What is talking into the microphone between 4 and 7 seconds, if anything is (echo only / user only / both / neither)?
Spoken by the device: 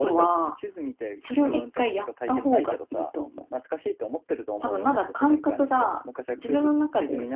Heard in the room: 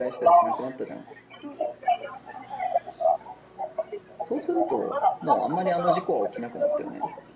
both